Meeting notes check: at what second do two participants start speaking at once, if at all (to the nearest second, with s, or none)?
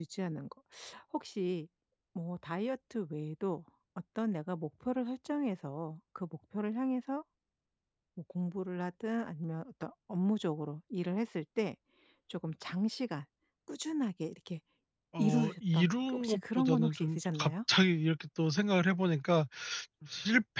15 s